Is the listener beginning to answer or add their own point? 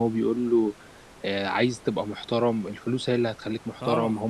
Yes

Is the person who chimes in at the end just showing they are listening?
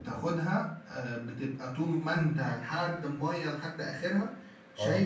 Yes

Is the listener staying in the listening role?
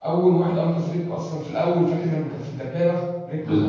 No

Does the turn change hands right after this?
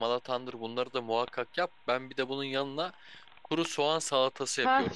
Yes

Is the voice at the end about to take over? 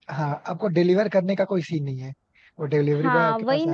Yes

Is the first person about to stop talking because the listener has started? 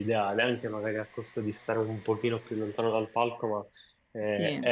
No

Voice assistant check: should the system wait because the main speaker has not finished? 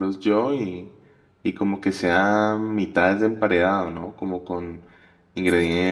Yes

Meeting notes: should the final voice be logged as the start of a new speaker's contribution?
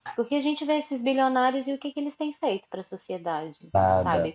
No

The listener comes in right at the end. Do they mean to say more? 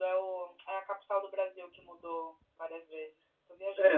Yes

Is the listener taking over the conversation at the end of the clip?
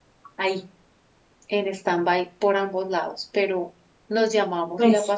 No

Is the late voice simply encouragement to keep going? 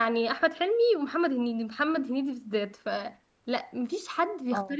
Yes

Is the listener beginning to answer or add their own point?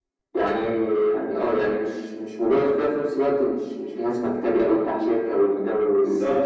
Yes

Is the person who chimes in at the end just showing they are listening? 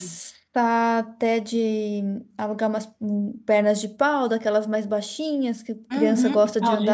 No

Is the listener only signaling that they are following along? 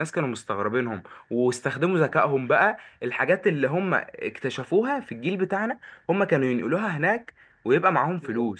No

